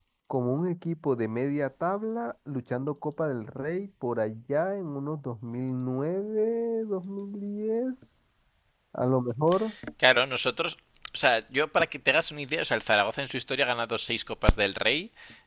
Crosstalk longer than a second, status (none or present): none